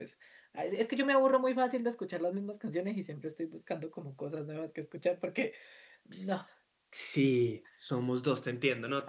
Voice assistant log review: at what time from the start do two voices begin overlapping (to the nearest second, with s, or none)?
none